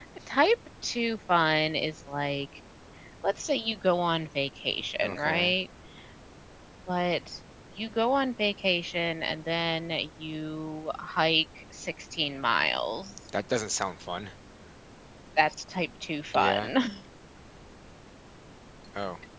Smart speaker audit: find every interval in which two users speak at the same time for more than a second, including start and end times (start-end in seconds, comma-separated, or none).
none